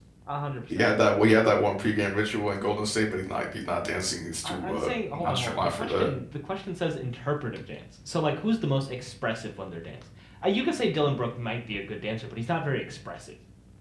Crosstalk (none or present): present